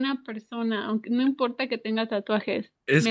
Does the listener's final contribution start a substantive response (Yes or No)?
Yes